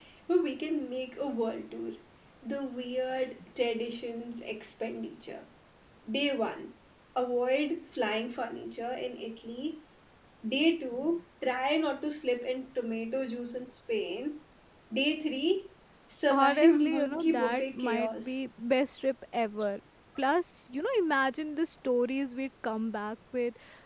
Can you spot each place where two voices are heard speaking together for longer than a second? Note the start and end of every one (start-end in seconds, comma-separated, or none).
16.3-18.4